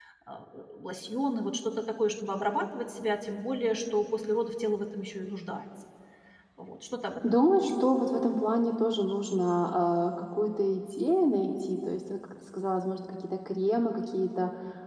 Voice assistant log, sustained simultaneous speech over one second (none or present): none